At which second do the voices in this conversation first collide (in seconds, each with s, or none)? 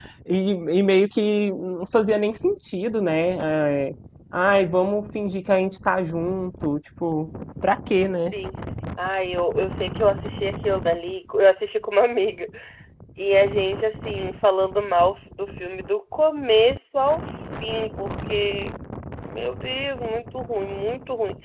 none